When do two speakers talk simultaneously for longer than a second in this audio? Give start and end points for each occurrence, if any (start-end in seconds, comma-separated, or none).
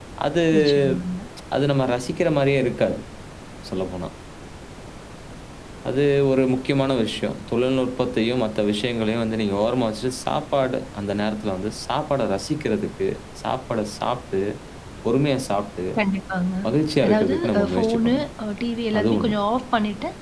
17.0-18.3